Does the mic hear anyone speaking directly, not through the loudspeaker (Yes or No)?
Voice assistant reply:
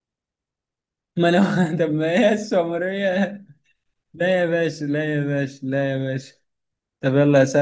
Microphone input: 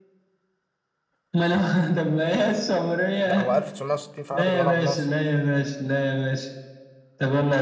Yes